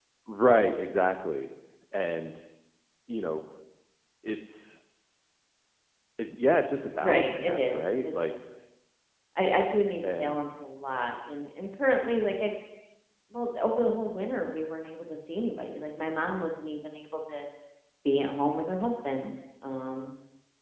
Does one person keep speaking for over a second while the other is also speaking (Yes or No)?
Yes